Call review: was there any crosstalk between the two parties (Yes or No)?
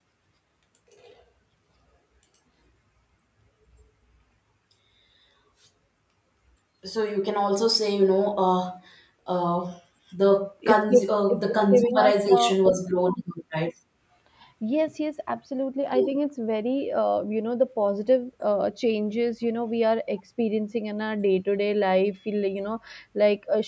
Yes